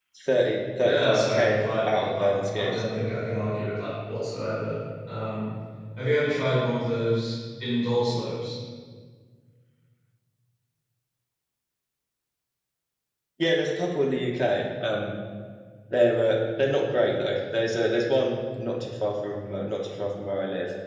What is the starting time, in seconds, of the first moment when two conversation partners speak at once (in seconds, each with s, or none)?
0.8 s